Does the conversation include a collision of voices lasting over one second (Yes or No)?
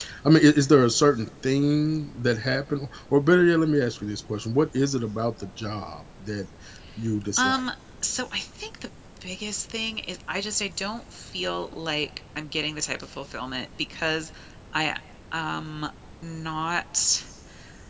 No